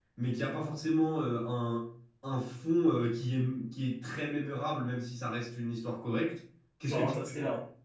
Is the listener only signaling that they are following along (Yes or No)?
Yes